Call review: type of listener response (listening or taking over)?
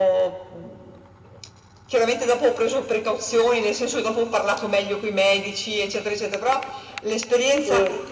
listening